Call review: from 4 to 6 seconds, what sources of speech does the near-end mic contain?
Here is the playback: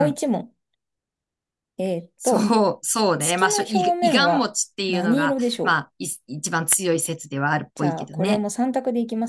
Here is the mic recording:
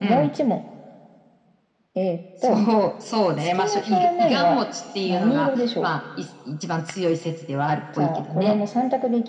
echo only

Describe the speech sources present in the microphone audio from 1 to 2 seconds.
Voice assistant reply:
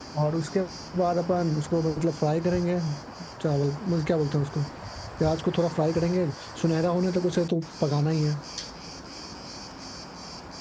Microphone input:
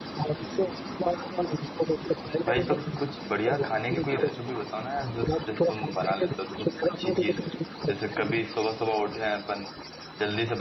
echo only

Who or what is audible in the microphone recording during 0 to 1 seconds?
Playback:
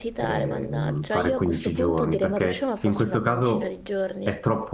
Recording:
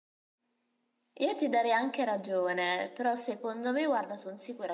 neither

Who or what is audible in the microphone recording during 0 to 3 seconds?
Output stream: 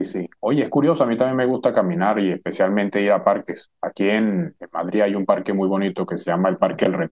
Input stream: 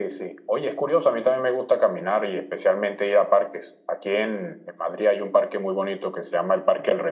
echo only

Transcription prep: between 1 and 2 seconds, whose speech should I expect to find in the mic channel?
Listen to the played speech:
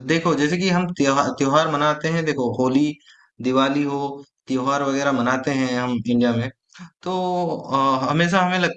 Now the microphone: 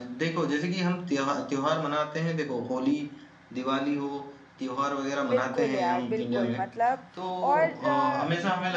echo only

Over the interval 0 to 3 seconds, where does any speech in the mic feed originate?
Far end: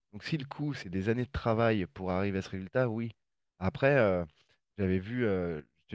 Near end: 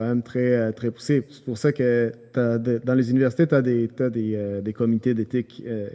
user only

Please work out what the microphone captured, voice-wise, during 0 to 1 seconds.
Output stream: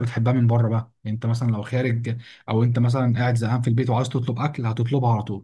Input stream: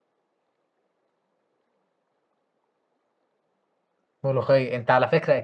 neither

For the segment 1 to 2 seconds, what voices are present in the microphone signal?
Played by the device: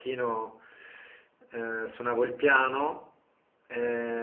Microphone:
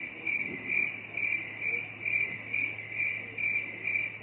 neither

